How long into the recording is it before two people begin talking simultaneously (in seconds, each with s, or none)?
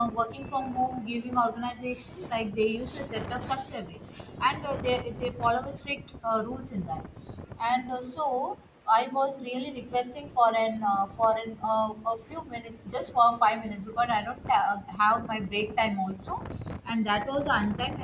none